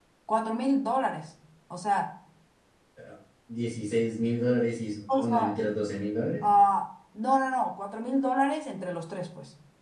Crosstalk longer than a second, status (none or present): none